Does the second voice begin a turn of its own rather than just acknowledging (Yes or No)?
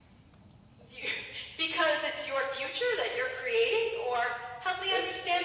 Yes